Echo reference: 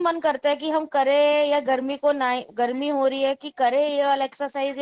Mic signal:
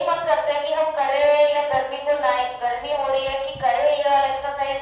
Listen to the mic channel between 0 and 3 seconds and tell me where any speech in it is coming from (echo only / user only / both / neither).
echo only